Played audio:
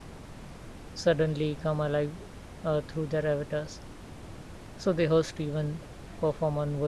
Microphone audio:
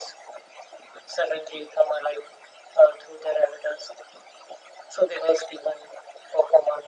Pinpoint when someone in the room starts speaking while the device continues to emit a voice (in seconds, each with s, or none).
none